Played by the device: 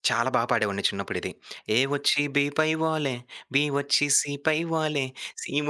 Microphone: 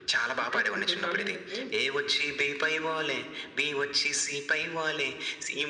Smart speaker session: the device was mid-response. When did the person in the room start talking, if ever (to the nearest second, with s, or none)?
0 s